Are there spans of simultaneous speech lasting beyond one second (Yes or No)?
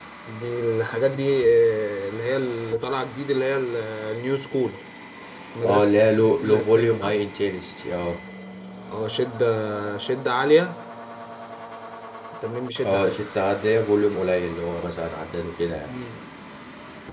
Yes